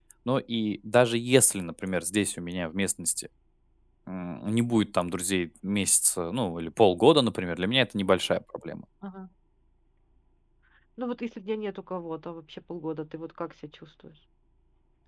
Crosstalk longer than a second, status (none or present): none